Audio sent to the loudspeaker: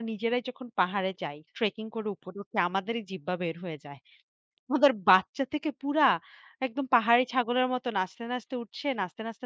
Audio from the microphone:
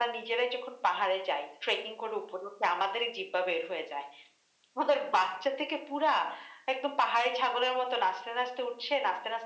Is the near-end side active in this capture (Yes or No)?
No